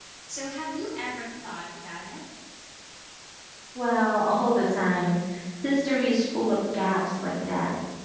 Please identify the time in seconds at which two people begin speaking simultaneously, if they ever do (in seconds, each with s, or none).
none